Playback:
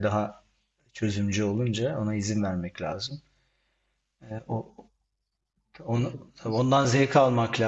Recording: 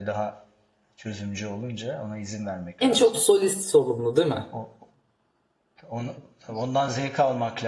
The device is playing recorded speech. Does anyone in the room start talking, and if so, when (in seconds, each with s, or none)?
2.8 s